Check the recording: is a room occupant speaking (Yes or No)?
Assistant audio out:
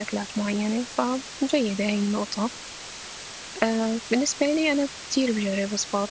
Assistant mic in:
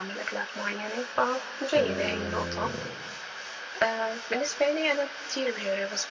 Yes